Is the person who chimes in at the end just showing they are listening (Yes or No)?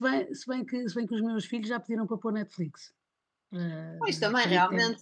No